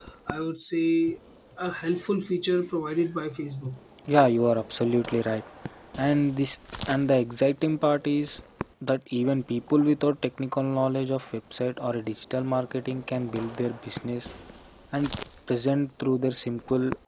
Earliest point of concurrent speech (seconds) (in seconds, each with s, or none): none